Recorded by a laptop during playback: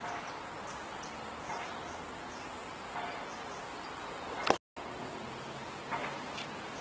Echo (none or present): none